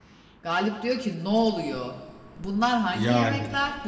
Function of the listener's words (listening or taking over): listening